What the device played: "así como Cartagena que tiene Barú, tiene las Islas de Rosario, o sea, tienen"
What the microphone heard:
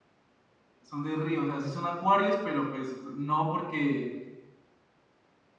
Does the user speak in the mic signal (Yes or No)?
Yes